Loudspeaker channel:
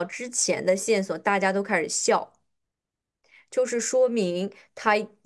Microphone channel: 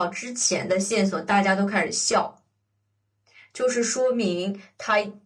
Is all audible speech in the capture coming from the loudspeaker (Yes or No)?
Yes